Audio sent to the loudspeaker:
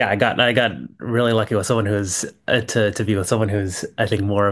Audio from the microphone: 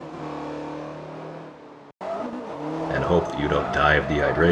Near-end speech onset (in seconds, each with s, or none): 2.9 s